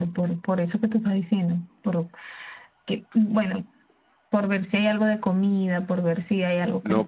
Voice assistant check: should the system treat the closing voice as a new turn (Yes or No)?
Yes